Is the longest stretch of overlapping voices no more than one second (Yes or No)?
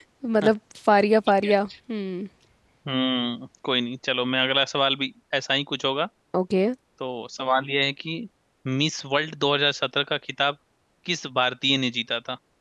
Yes